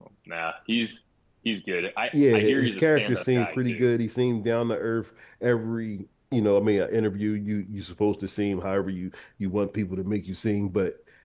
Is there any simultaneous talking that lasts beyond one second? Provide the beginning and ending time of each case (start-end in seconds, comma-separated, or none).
2.1-3.9